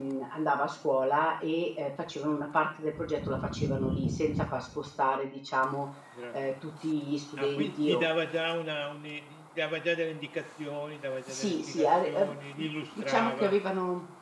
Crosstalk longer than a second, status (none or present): present